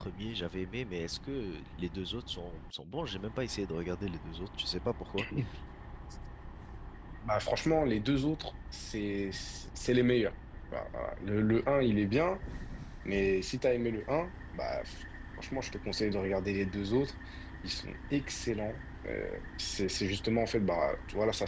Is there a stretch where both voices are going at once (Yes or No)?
No